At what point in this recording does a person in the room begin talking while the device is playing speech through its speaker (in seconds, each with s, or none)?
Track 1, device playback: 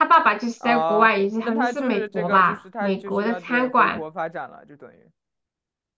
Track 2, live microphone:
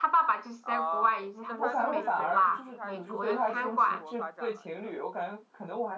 1.6 s